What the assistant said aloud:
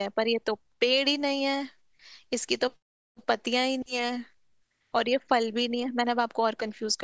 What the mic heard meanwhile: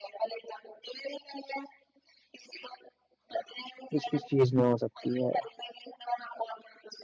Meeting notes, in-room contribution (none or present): present